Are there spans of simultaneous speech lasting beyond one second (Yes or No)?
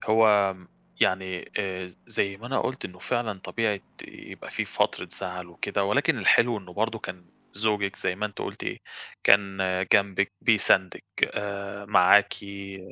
No